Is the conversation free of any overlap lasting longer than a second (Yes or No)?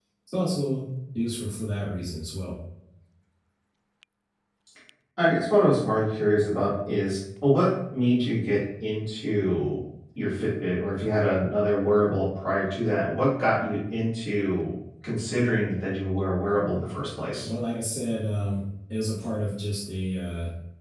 Yes